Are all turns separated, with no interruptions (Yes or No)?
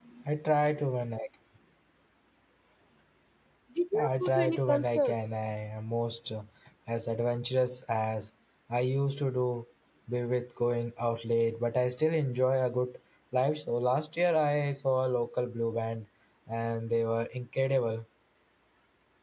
No